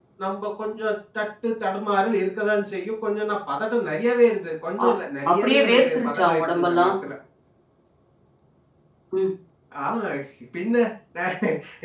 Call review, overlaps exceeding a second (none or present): present